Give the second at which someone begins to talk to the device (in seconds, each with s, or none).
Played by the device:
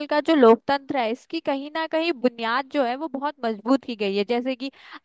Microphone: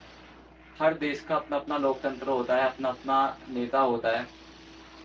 0.8 s